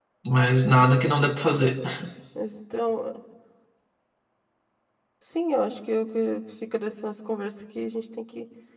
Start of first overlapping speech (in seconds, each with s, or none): none